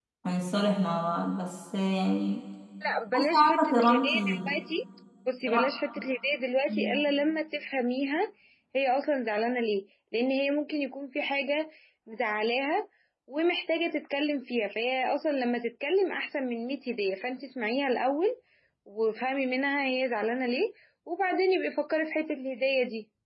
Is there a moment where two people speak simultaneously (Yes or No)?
Yes